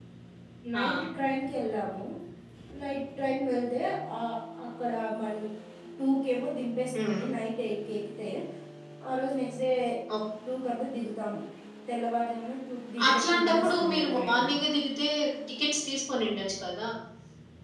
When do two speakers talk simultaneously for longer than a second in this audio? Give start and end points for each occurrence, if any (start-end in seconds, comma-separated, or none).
13.1-14.4